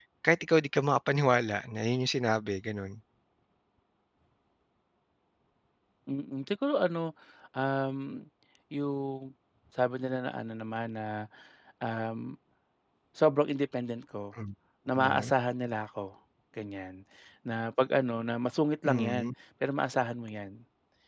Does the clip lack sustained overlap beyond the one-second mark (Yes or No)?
Yes